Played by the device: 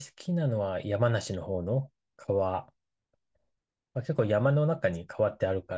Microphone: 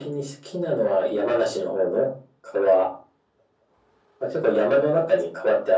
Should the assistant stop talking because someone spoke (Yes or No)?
No